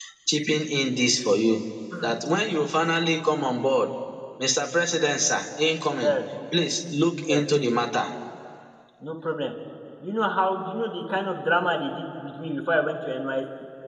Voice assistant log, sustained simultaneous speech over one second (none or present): none